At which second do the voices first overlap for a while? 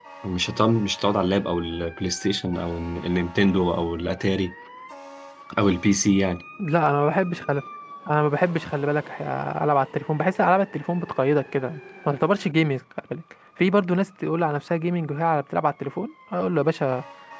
none

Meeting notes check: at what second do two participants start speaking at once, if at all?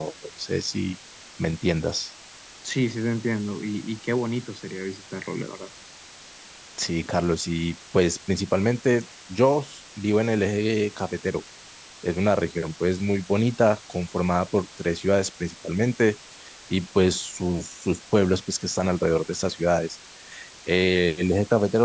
none

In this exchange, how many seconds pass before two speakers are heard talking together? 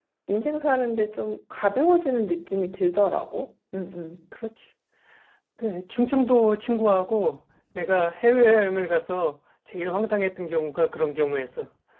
none

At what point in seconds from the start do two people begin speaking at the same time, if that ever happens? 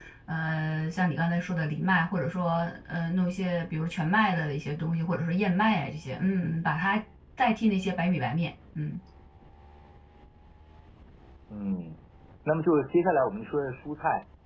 none

